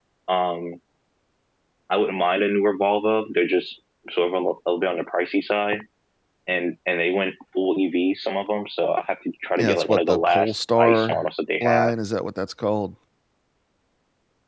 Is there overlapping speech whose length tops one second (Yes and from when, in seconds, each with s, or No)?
Yes, from 9.6 s